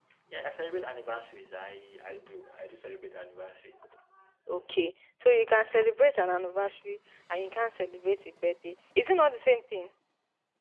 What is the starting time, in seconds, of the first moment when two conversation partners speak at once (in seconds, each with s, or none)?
none